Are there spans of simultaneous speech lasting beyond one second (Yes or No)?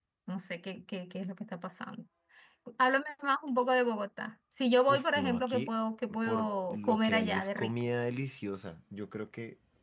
Yes